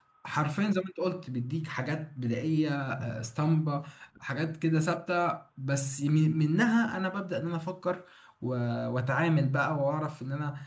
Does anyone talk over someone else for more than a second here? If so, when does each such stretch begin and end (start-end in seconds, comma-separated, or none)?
none